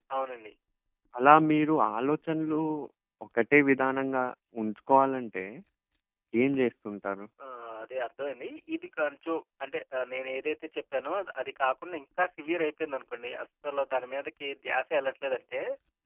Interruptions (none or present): none